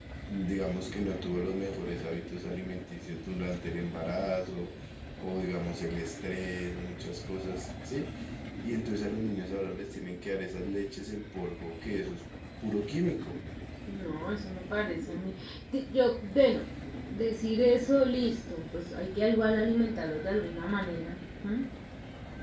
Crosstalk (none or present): none